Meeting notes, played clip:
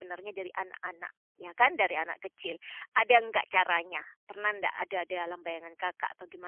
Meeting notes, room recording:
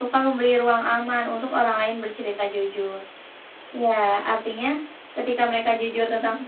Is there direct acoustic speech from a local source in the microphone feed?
Yes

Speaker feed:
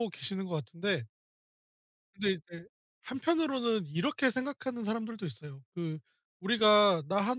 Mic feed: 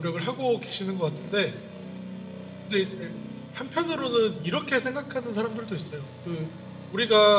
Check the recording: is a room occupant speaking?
No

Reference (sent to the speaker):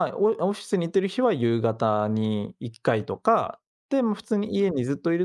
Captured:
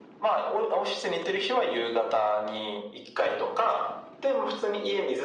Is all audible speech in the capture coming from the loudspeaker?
Yes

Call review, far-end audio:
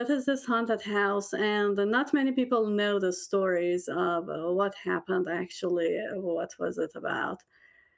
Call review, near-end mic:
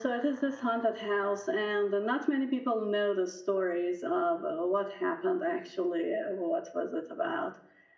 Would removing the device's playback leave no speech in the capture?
Yes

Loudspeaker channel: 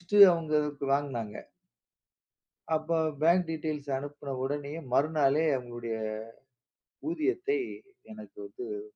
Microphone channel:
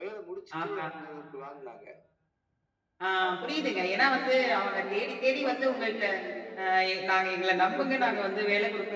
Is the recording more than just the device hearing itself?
Yes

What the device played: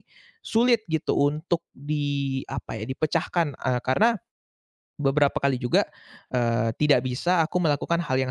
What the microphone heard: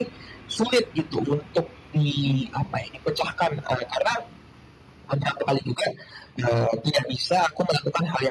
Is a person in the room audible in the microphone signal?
Yes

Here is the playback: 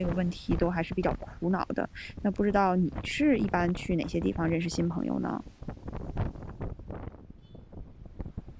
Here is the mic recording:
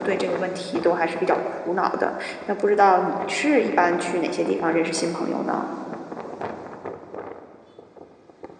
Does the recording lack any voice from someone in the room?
Yes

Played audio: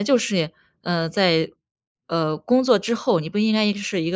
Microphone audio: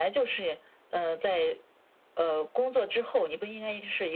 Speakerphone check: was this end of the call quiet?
Yes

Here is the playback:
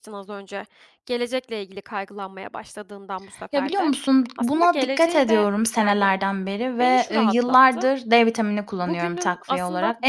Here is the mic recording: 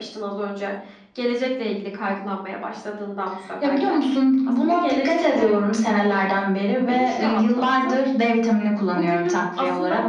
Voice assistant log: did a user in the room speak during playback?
No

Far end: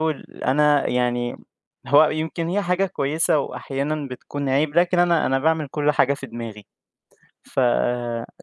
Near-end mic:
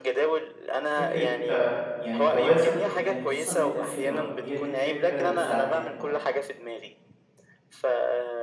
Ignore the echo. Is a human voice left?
Yes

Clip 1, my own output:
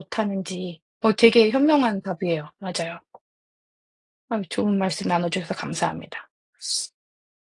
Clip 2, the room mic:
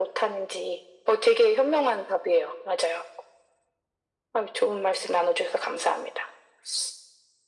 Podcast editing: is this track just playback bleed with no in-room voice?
Yes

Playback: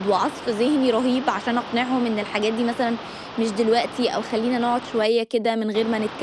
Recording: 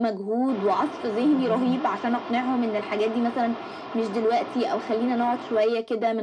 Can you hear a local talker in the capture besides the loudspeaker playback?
Yes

